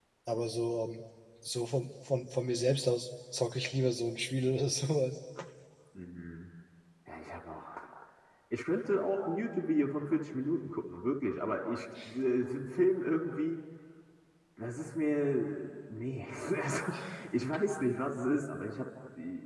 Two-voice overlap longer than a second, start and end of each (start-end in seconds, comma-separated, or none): none